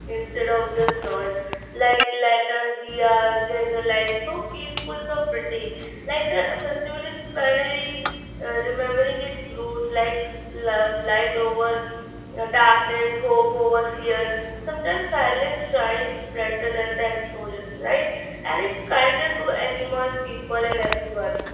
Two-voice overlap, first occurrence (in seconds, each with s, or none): none